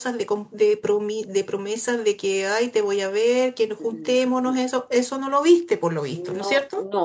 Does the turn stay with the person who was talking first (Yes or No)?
No